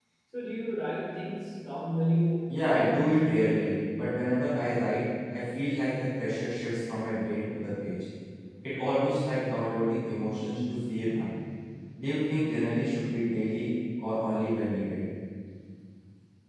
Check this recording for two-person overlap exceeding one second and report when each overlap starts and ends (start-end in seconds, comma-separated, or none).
2.5-3.8